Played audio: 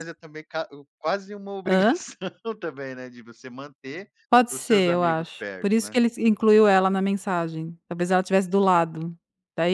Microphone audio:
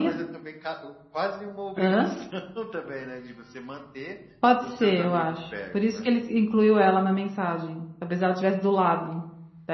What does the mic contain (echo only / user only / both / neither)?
echo only